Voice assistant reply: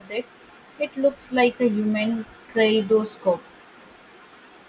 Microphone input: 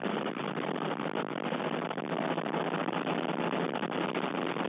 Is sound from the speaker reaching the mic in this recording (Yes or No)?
No